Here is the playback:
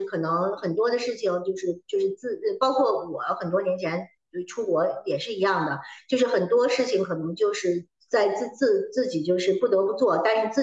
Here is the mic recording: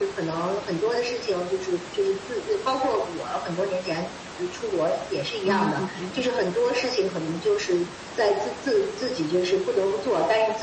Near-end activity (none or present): present